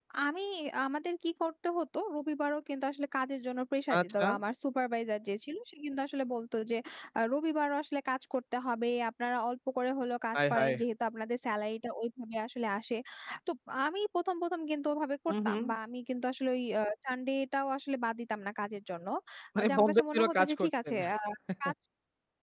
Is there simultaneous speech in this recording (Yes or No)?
Yes